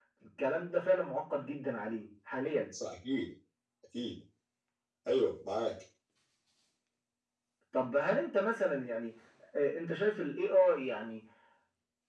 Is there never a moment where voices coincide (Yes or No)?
Yes